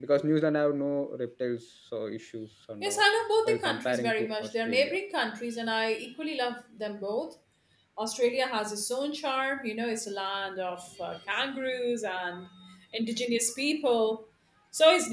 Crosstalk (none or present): present